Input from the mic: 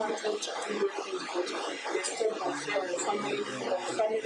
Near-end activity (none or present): present